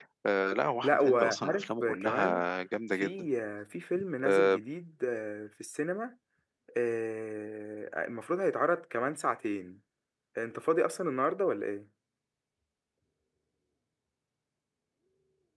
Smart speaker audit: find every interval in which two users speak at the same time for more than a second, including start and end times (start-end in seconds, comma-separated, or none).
0.8-2.4